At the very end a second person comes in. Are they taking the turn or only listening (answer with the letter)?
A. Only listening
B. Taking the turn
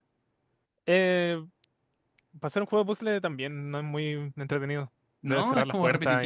B